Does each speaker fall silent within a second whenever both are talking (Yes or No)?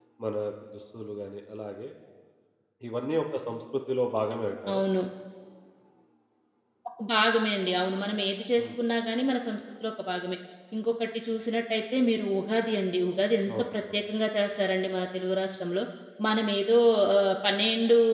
Yes